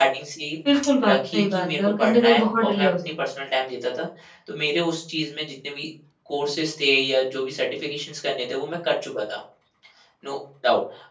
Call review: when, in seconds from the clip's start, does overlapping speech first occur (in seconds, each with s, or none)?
1.0 s